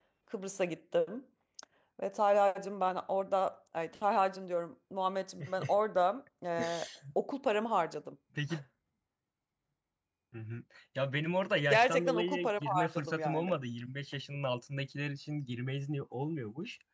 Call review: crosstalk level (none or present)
present